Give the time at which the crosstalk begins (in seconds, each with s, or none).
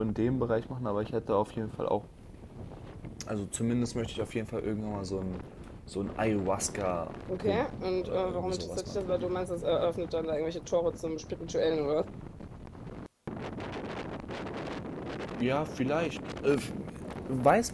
7.3 s